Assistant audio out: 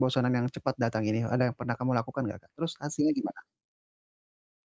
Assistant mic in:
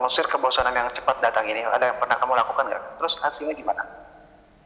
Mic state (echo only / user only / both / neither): echo only